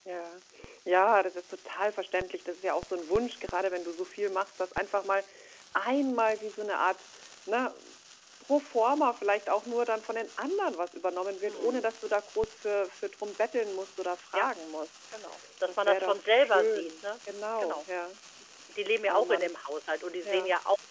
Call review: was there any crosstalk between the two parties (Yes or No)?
Yes